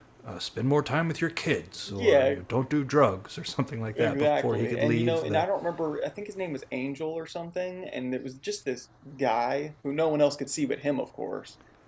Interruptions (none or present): present